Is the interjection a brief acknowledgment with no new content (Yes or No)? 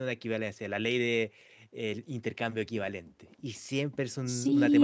No